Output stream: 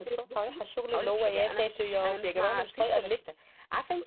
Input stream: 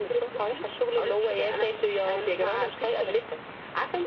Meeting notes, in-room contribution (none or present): none